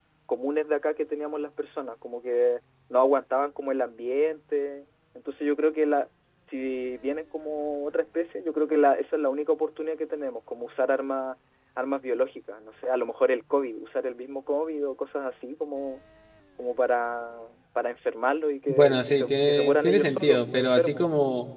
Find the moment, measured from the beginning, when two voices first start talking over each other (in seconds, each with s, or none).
18.7 s